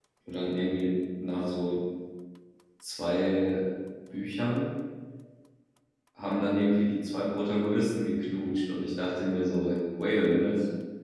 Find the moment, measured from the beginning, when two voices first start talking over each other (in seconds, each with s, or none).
none